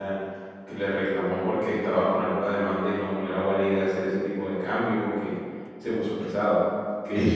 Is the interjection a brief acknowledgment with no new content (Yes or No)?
No